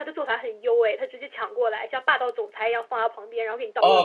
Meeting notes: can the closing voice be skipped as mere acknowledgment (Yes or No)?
No